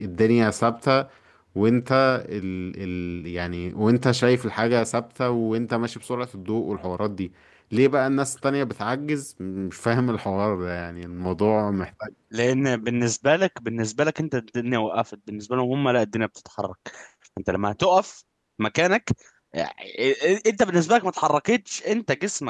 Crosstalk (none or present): none